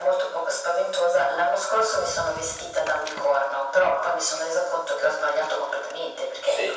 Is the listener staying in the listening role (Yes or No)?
No